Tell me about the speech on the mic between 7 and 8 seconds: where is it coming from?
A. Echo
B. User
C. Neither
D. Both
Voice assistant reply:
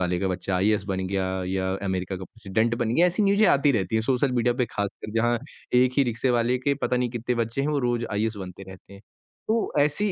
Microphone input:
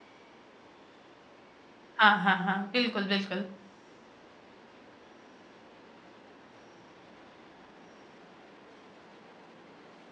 C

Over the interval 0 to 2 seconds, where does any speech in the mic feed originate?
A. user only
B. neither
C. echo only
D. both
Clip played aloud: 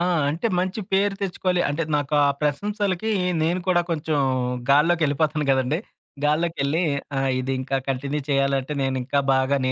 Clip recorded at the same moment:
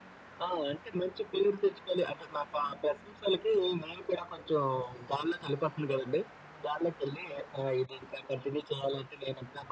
C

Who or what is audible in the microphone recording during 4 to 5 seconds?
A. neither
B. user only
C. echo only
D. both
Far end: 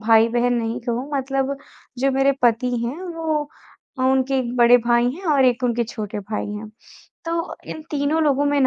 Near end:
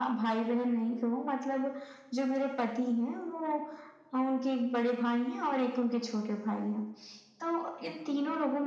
C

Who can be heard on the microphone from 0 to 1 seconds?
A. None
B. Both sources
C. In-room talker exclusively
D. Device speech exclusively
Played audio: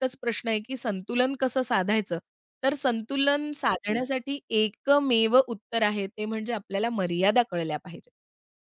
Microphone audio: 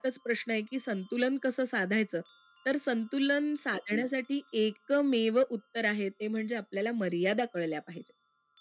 D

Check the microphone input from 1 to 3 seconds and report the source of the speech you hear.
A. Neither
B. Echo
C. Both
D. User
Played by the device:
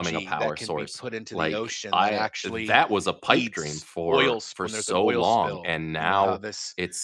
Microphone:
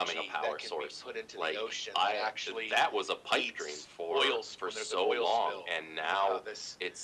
B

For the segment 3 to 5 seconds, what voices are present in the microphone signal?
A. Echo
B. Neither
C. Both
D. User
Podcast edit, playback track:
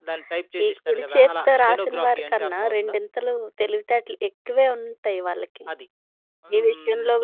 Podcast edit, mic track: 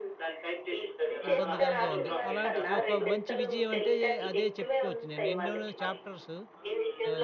C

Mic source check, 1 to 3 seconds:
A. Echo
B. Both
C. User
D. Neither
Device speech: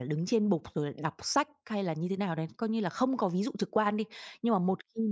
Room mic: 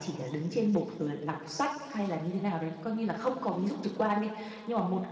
A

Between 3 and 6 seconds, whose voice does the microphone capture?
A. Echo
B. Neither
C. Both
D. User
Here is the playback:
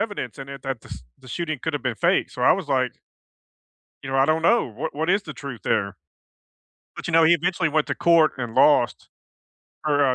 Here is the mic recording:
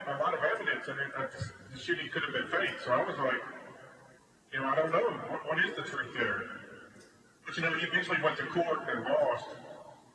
A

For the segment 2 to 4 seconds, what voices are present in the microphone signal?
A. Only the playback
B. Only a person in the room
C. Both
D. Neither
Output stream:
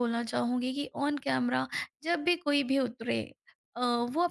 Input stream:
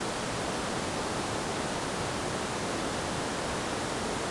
D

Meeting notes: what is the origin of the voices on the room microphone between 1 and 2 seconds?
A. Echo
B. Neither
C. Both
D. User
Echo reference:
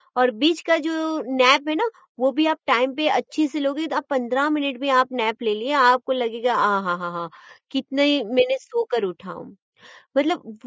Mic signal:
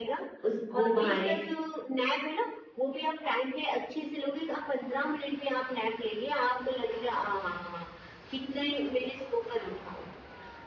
C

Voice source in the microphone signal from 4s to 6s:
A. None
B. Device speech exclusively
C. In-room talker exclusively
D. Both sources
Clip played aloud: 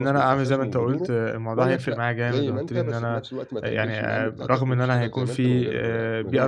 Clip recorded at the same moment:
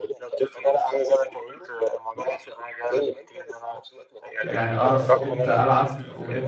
D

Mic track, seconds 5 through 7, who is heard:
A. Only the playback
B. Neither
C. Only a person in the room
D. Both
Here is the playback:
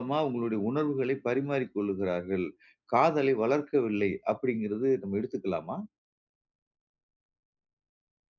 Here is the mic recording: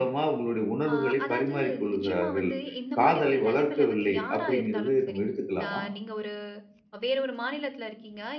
D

